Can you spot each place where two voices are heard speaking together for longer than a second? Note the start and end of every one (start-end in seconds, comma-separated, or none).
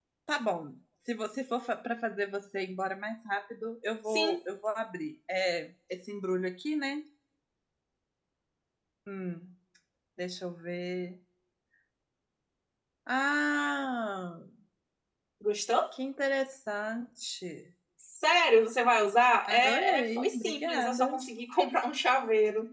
19.5-21.0